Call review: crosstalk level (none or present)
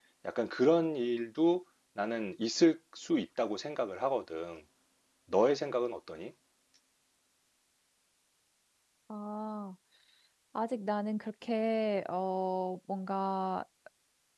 none